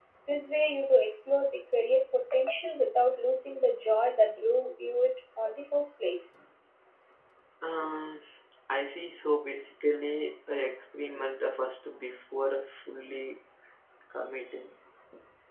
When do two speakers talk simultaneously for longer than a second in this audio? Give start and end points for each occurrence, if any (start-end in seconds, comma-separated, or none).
none